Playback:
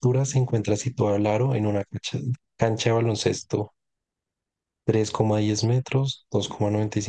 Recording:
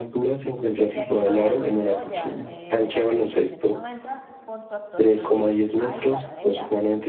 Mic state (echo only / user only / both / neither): both